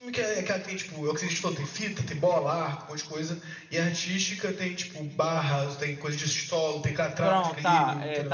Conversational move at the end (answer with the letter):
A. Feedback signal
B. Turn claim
B